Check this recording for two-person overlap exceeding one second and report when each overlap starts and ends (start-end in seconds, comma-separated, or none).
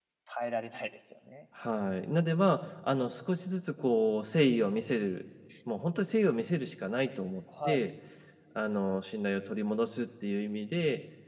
none